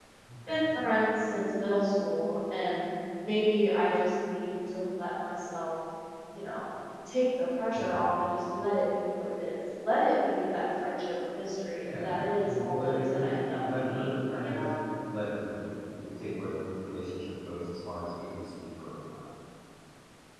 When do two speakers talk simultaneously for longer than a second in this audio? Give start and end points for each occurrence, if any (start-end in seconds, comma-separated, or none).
11.8-14.7